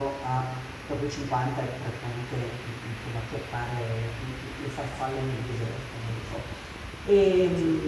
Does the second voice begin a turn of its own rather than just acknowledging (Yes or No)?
No